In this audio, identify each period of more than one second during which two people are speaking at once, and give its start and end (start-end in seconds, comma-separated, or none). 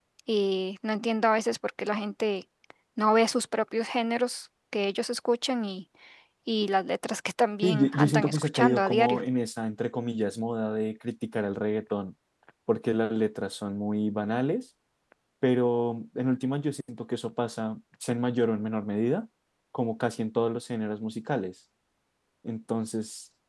7.6-9.2